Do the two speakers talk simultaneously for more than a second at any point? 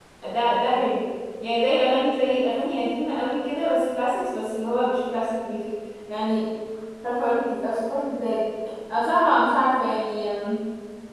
No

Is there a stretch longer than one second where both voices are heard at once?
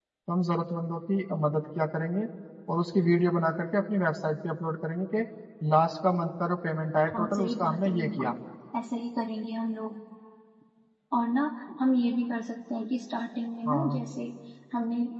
Yes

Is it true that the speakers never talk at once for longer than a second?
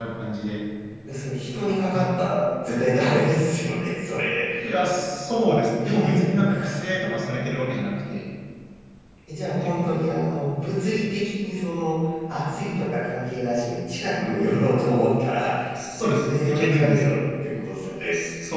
No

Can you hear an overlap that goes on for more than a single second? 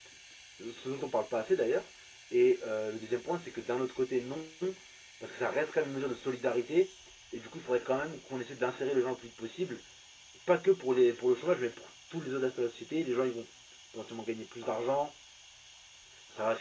No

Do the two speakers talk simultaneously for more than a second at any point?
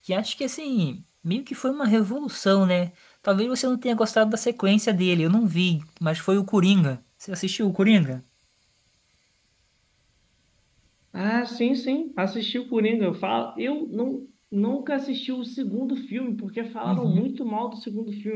No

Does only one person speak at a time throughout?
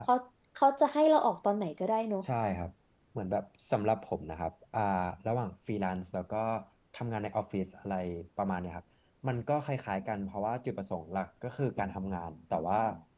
Yes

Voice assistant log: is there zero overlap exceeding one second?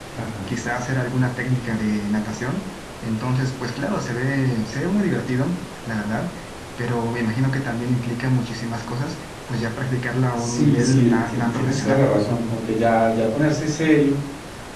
No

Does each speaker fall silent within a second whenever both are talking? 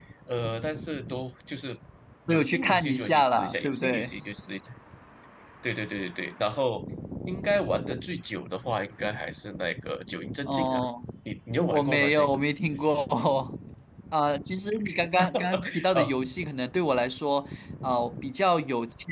No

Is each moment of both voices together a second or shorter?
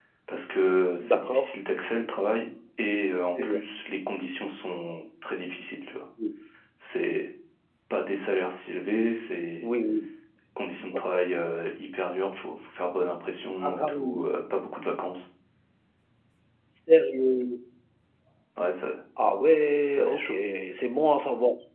Yes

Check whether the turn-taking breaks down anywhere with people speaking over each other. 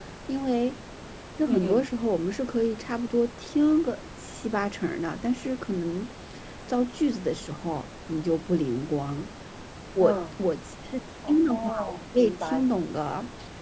Yes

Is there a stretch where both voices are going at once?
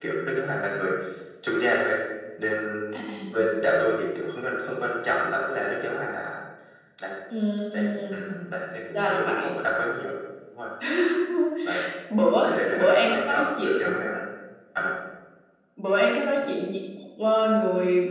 Yes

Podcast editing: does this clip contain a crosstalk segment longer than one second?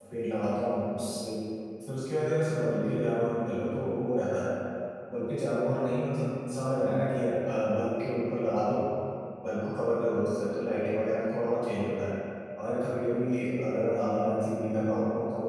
No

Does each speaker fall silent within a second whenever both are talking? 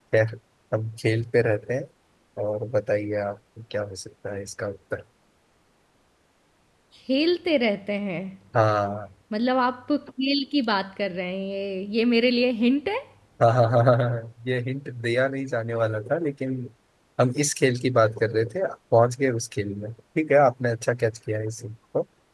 Yes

